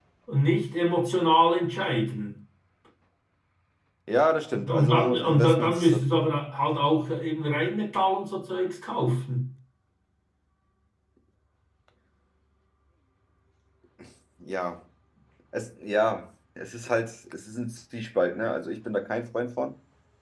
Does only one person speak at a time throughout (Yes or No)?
No